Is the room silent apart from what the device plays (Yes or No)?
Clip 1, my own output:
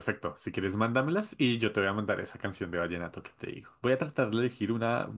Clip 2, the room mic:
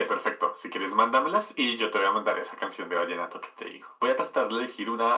Yes